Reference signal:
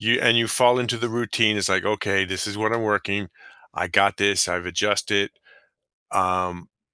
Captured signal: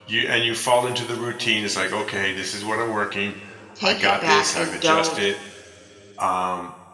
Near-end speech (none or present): present